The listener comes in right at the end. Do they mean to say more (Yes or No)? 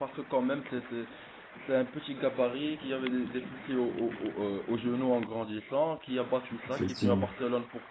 No